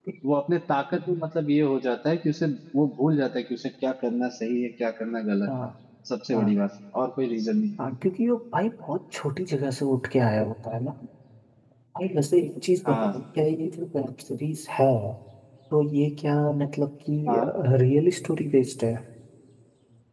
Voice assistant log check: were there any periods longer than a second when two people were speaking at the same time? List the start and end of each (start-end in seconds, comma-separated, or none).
none